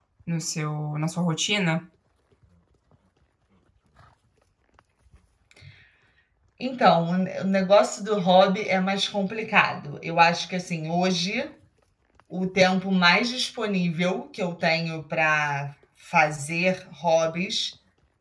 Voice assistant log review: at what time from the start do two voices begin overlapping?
none

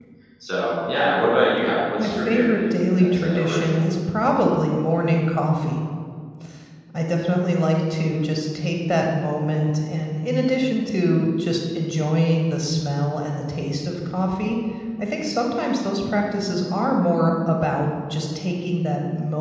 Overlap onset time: 2.0 s

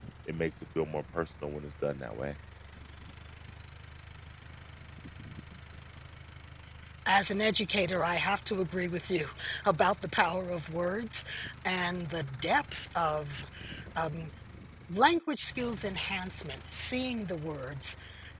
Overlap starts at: none

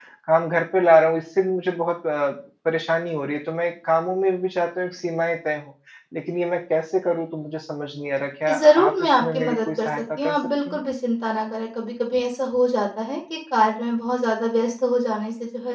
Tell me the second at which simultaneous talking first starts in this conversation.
8.5 s

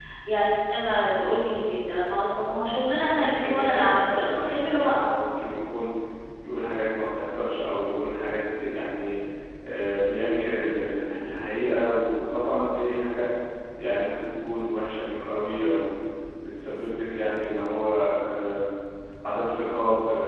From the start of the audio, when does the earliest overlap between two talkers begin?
3.0 s

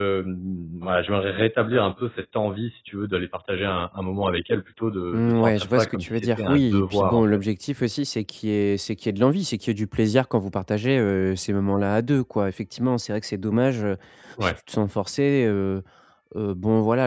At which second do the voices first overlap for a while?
5.1 s

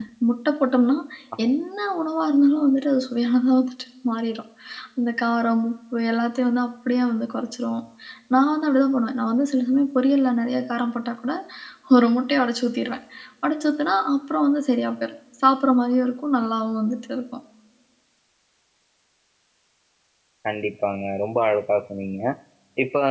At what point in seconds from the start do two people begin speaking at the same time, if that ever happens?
none

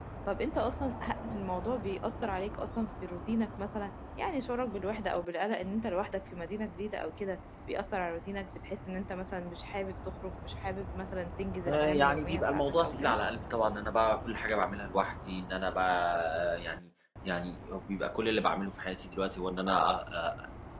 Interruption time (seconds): 11.6 s

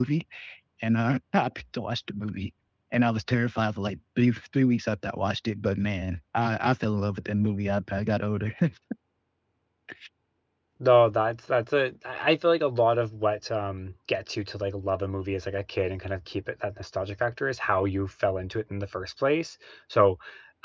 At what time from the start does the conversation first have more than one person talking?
none

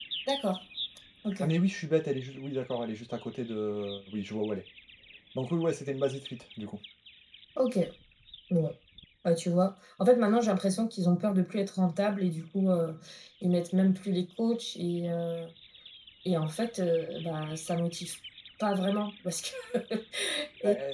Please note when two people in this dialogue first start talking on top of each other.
none

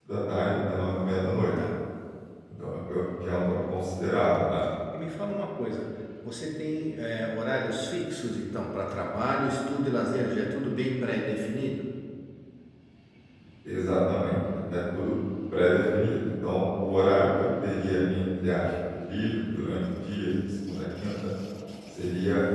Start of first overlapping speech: none

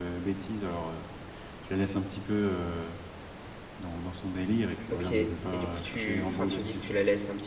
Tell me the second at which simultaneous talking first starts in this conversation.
4.9 s

